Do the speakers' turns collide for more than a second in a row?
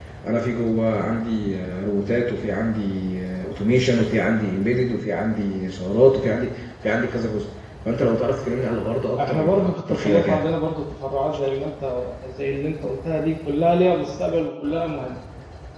Yes, from 9.2 s

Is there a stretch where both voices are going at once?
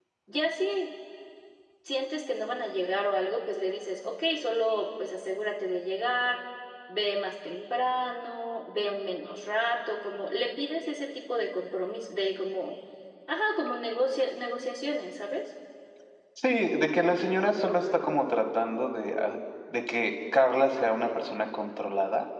No

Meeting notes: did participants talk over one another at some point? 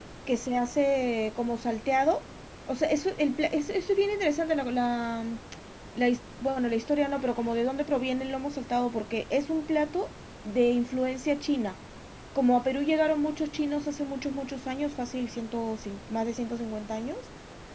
No

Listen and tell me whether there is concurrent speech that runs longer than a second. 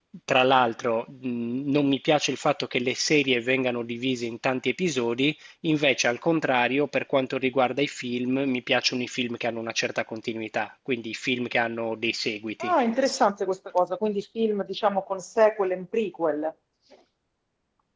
No

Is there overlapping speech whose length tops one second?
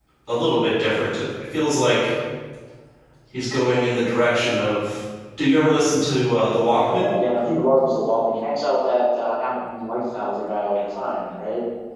No

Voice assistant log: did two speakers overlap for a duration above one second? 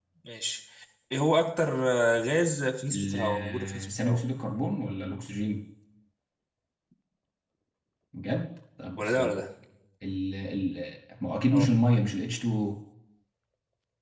Yes, from 2.9 s

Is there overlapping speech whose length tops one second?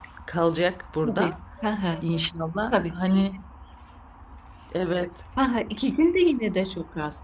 No

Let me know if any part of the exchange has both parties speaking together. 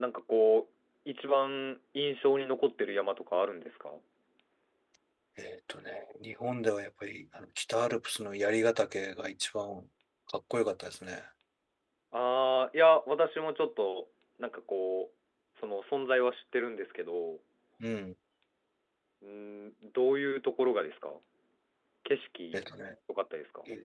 No

